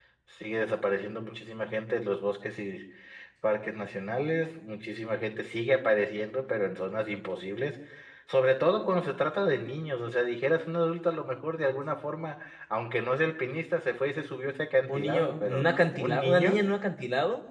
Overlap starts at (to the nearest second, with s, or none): 15 s